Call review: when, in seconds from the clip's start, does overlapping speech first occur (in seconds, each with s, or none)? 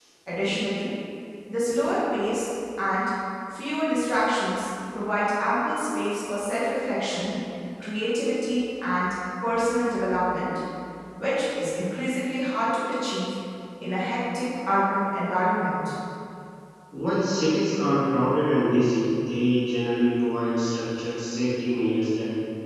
none